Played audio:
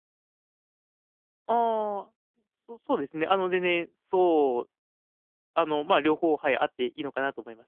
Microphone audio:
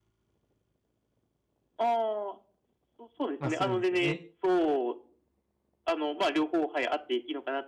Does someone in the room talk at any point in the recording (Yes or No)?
Yes